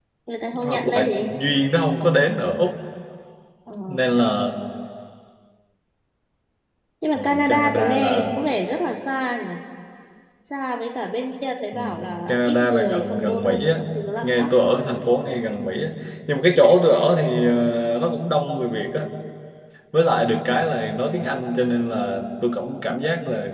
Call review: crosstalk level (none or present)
present